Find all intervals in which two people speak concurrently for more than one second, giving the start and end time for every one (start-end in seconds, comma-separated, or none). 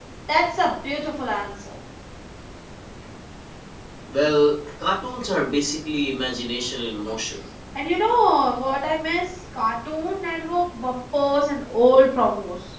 none